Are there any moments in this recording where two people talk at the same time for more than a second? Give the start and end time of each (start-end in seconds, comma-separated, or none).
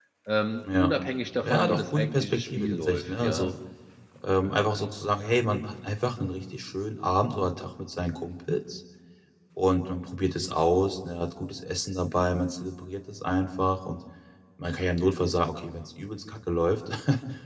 1.4-3.5